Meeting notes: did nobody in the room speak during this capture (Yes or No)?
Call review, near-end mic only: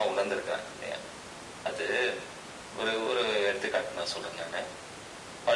Yes